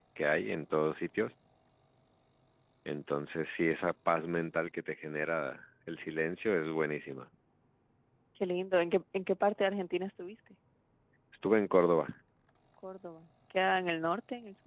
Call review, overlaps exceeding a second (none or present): none